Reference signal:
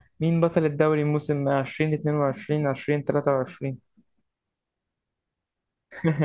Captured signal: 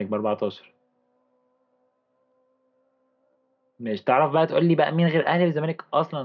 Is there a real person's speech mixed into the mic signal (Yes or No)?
Yes